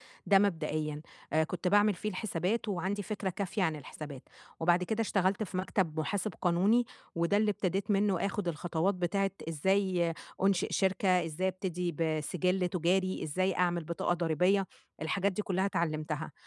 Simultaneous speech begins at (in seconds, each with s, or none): none